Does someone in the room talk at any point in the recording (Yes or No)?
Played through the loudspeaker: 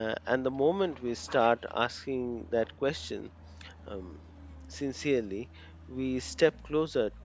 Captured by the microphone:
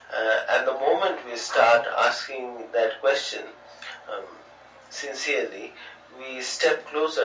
No